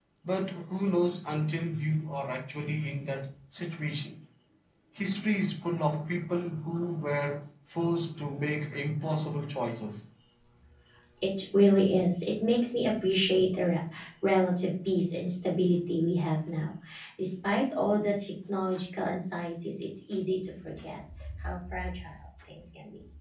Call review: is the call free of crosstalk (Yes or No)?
Yes